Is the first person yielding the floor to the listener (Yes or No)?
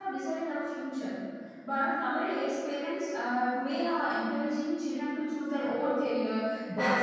No